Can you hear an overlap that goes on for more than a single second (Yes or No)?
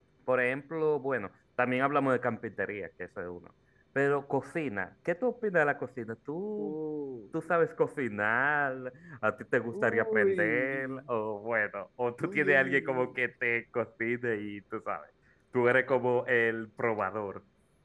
Yes